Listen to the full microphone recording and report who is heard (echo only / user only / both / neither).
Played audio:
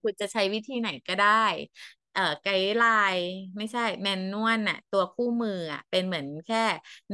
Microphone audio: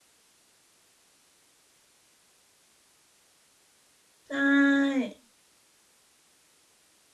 user only